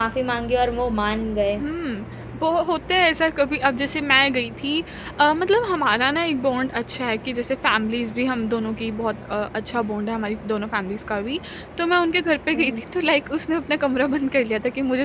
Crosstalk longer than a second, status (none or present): none